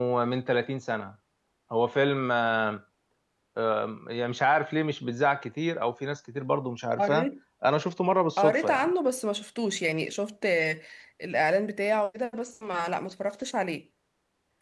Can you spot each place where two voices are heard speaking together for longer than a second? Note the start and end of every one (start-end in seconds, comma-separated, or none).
none